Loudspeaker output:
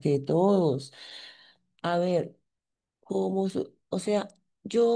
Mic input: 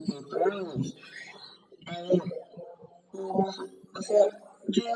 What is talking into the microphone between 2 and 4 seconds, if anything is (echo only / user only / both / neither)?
echo only